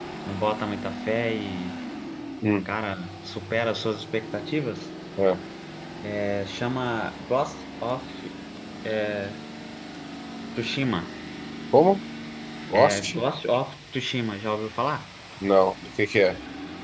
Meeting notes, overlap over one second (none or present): none